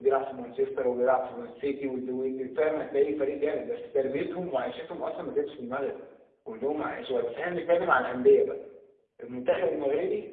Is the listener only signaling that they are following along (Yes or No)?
Yes